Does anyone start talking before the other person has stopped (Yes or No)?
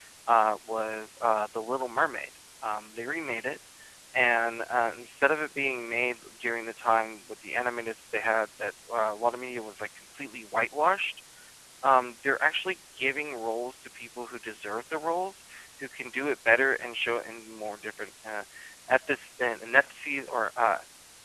No